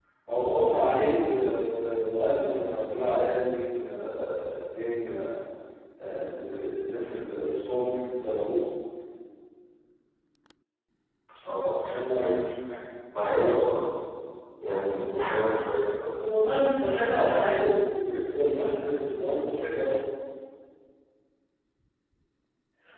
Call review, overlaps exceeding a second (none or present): none